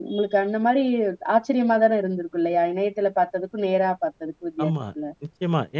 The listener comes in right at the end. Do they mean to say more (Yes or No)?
Yes